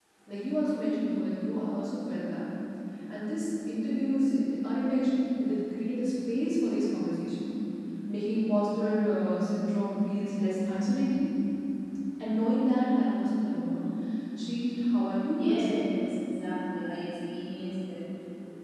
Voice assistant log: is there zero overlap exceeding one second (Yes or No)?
Yes